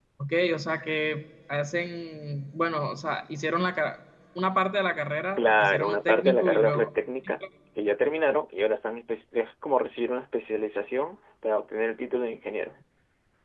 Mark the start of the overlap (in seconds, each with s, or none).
5.4 s